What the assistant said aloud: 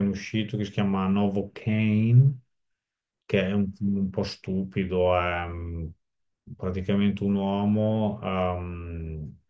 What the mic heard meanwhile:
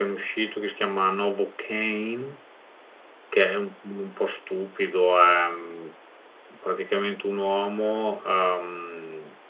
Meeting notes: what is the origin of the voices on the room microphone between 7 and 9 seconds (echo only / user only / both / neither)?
echo only